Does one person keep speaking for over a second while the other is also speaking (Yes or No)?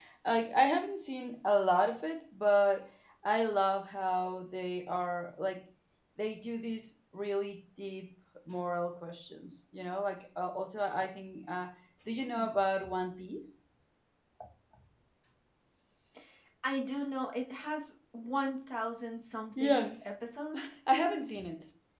No